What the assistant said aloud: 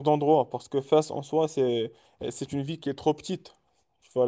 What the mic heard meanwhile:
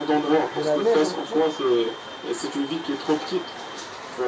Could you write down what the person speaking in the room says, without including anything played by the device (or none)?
De la neige au Maroc.